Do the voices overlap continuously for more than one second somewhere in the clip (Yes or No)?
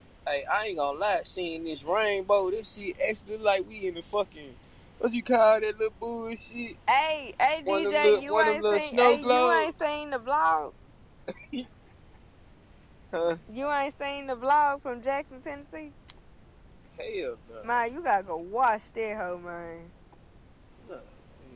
Yes